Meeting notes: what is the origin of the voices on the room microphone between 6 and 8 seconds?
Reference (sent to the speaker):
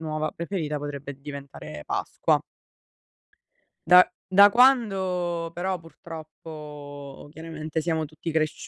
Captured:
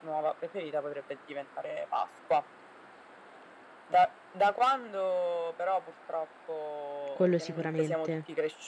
both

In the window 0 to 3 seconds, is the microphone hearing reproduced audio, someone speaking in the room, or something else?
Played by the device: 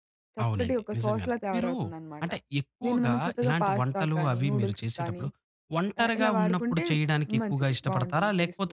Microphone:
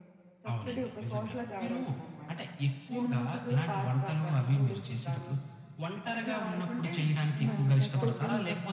echo only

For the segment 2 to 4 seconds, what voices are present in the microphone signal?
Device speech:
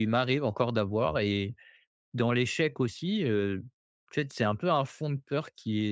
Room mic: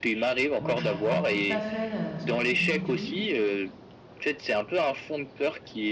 both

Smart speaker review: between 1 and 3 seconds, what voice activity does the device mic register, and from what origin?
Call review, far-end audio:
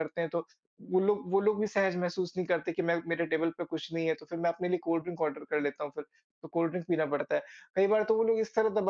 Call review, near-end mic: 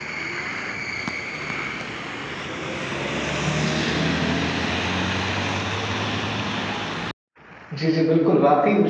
neither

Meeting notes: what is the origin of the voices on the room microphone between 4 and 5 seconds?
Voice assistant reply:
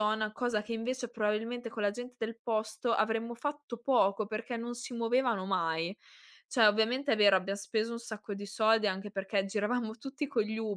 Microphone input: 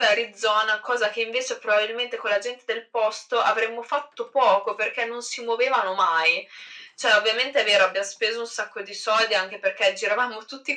echo only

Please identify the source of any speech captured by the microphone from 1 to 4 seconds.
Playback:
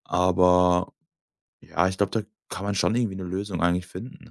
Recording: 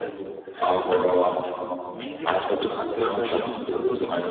both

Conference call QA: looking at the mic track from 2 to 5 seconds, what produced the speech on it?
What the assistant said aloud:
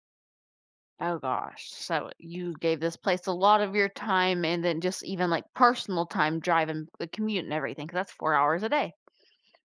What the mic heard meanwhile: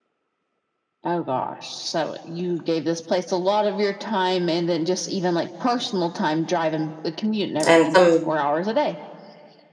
echo only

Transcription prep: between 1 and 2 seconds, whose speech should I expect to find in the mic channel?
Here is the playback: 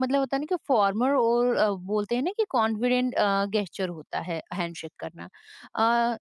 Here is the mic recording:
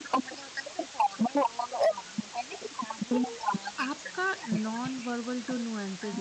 echo only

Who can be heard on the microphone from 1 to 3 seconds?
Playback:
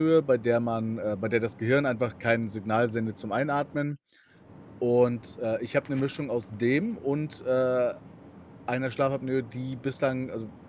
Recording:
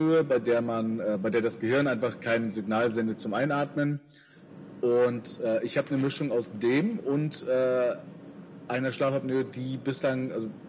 echo only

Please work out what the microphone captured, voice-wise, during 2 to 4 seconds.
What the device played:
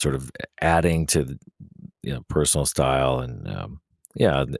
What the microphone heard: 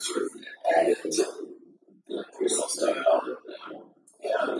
echo only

